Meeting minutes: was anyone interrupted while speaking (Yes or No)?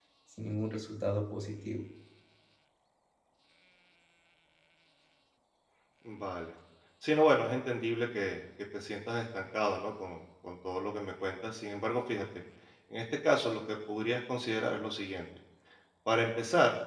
No